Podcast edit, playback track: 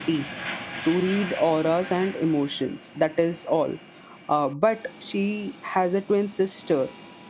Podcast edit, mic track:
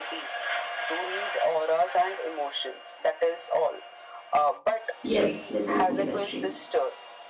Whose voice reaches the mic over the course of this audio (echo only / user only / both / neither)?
both